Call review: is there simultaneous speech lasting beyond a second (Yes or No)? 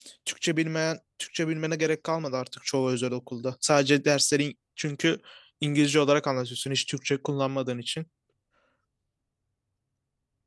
No